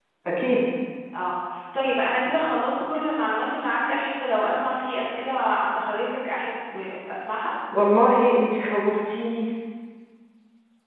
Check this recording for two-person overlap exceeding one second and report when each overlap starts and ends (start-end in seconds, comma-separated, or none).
none